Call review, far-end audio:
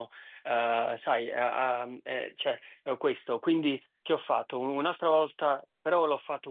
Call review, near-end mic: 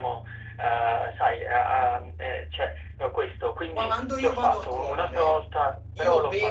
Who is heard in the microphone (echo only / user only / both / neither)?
both